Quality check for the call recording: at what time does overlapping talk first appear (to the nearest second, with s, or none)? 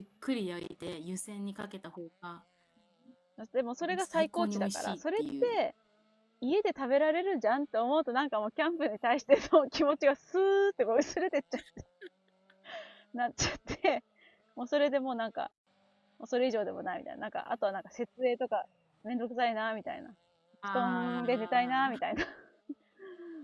4 s